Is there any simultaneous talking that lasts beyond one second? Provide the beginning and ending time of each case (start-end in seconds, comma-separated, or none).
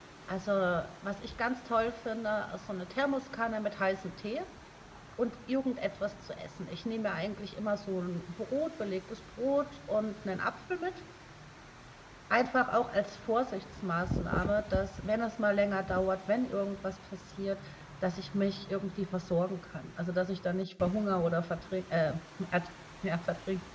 none